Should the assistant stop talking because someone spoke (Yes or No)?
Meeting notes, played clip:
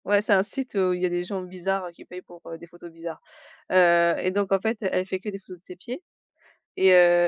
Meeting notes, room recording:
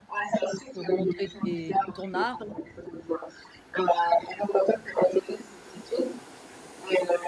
Yes